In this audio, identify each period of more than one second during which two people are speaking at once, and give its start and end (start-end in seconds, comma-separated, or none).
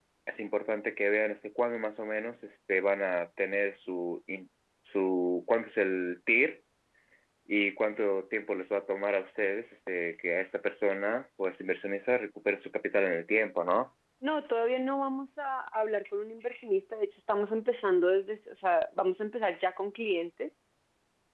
none